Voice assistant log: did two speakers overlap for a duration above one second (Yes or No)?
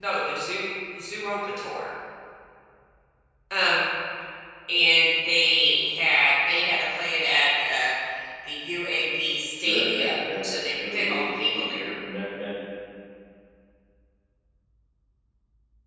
Yes